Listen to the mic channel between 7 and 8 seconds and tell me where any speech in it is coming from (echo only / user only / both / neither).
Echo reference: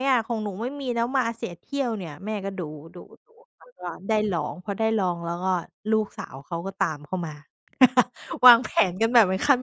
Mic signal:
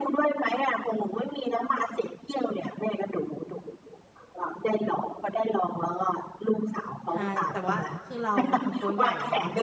both